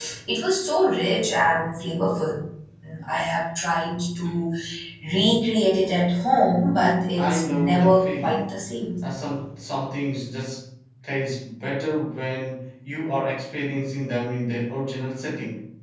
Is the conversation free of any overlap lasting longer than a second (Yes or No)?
No